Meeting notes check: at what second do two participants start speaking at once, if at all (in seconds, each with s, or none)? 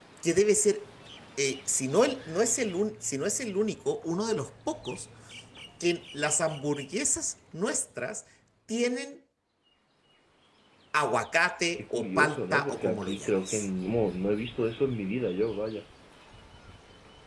11.8 s